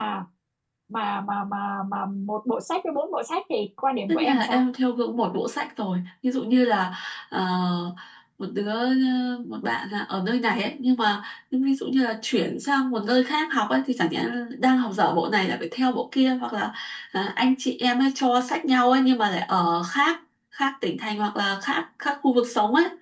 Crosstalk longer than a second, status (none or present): none